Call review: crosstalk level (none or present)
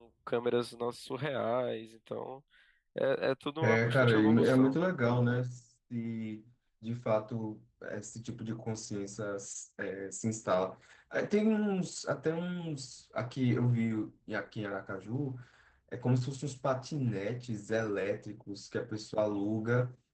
present